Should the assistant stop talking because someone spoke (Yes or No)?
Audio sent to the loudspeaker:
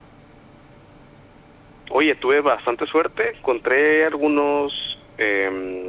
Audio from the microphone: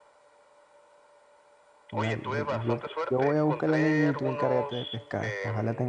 Yes